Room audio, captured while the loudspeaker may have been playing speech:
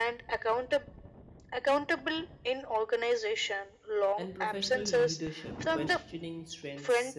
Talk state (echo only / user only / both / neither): both